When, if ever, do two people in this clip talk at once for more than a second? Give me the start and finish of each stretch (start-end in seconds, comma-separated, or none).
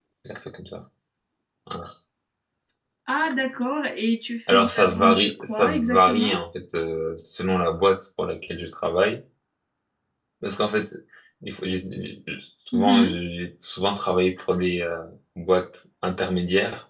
4.5-6.4